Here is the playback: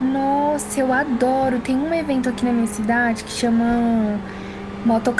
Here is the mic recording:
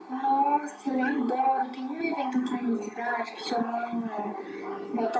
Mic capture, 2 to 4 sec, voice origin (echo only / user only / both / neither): echo only